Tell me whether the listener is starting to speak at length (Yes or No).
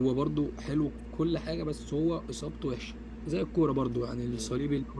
No